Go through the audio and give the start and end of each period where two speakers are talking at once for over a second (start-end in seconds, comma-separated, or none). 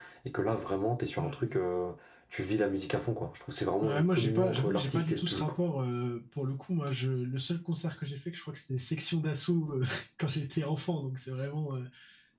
3.8-5.5